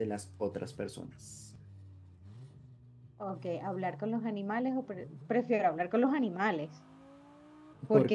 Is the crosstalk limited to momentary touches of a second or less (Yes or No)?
Yes